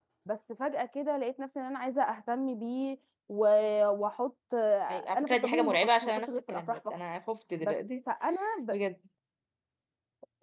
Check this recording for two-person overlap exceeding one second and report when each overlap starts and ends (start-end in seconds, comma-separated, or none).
5.2-7.0